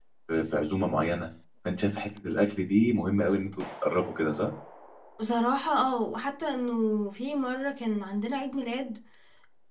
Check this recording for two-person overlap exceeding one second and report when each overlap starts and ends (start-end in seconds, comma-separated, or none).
none